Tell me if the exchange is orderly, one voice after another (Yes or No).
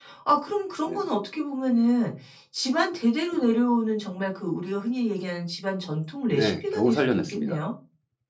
No